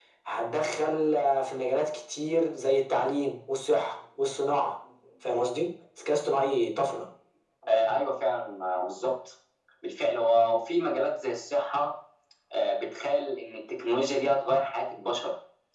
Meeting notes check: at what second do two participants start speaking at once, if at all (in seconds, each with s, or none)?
none